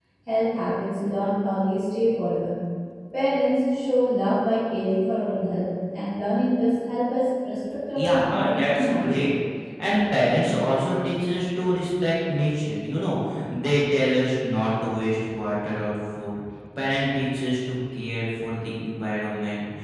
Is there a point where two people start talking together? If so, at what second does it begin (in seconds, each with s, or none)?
8.0 s